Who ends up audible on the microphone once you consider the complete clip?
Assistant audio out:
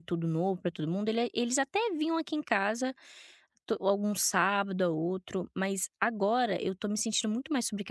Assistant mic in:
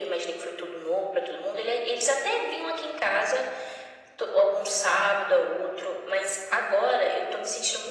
echo only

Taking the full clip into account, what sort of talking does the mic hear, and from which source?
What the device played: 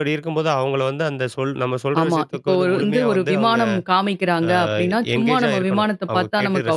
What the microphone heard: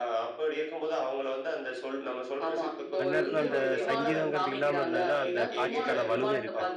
both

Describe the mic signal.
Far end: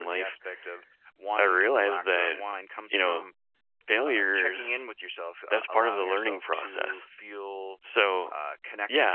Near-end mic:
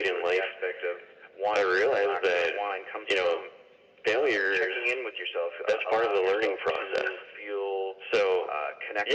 echo only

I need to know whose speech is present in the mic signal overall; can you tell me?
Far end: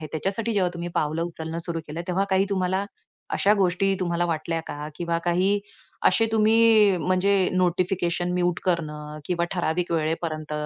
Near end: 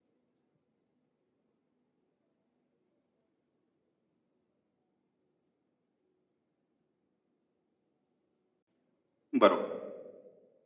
user only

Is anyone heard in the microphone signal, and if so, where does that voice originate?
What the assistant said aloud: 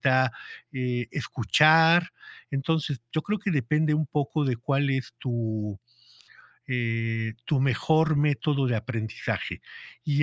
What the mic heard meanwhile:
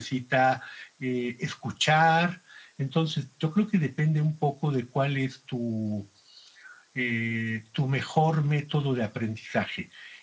echo only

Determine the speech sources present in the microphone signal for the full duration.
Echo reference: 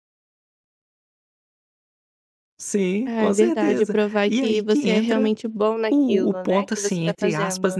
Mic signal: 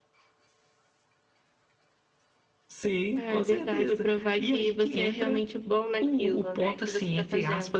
echo only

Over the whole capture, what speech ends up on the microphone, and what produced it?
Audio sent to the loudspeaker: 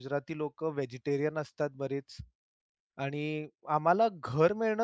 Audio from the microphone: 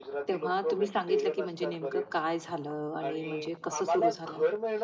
both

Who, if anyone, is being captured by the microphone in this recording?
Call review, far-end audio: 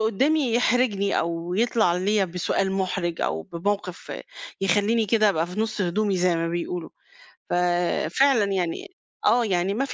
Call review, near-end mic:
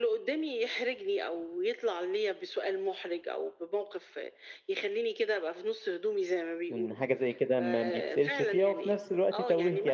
both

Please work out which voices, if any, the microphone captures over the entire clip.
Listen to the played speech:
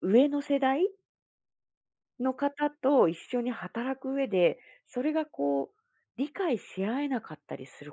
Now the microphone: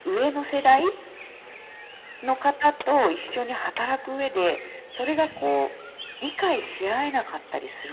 echo only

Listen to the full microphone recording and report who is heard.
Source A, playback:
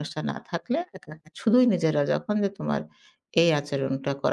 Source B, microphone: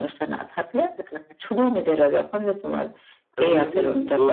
both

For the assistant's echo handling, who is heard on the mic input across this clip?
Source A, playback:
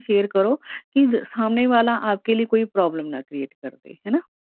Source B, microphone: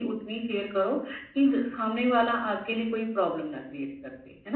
echo only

